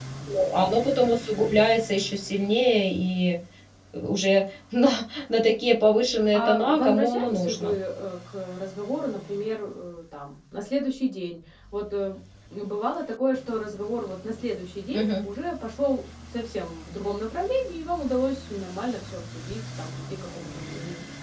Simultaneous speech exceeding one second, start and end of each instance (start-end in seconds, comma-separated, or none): 6.3-7.7